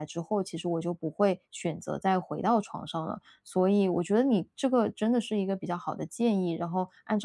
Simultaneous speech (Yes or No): No